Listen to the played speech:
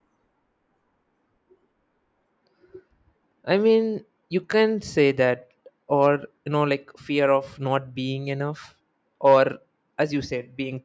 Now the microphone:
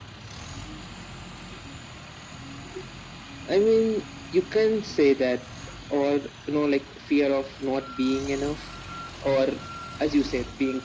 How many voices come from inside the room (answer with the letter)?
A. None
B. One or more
A